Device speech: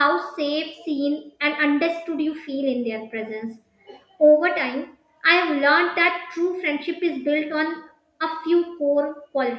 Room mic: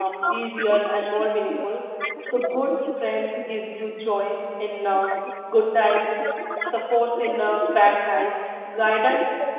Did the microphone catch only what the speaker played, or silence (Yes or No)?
No